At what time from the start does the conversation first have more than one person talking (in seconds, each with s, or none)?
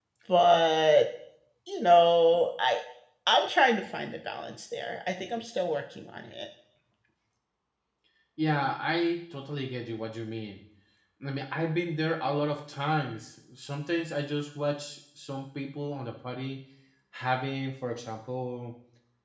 none